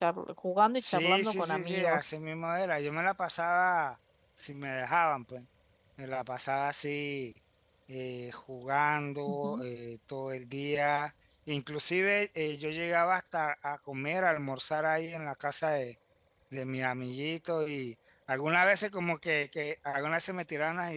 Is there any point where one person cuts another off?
Yes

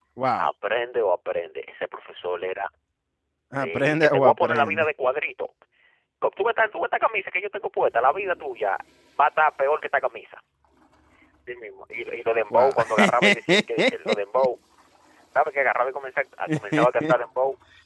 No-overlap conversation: No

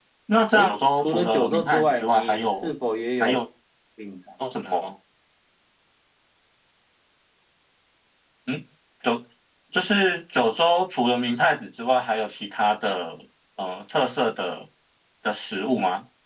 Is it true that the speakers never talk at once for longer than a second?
No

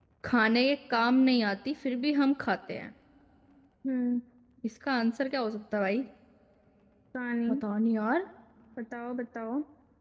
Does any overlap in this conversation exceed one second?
No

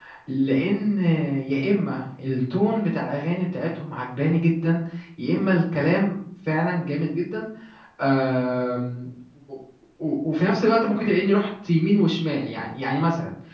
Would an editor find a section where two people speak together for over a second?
No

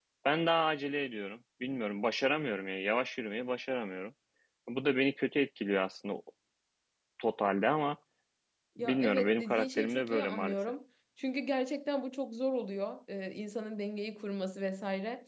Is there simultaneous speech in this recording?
Yes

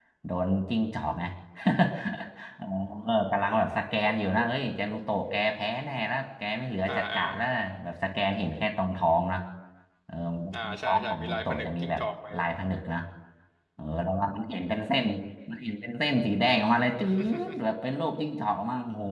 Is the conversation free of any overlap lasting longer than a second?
No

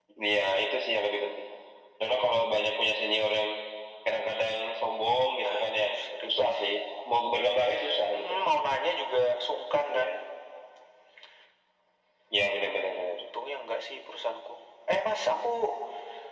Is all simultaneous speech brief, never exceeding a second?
Yes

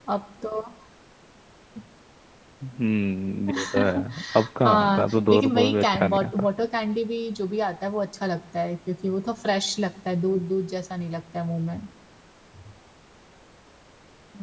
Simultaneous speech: Yes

